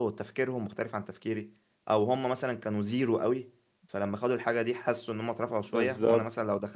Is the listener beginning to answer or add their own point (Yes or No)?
No